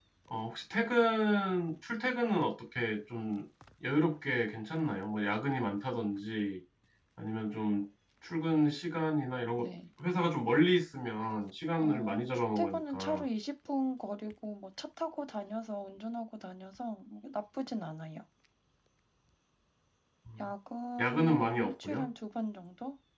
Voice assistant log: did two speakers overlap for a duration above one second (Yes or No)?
Yes